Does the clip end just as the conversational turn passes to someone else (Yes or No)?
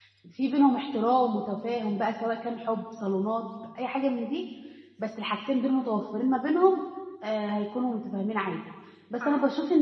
No